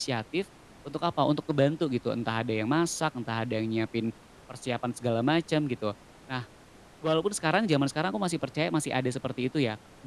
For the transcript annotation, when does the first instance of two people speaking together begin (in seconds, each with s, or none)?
none